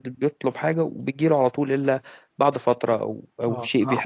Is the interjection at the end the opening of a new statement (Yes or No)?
Yes